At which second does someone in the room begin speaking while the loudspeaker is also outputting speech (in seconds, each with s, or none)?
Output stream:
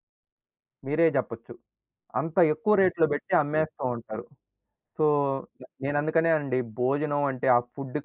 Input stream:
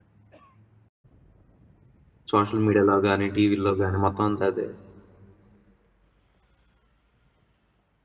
2.3 s